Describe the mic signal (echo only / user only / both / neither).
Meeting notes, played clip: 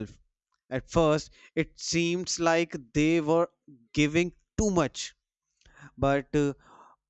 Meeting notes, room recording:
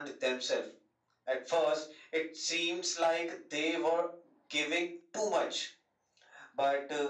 echo only